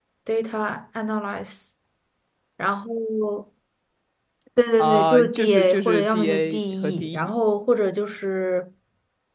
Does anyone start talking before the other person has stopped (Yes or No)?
Yes